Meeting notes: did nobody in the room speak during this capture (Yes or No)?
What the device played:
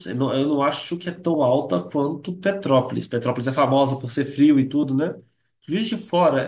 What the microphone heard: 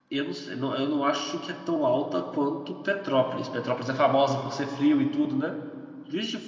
Yes